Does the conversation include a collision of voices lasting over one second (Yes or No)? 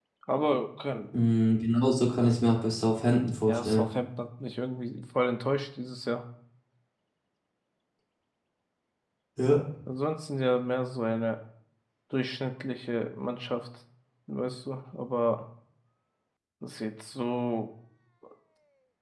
No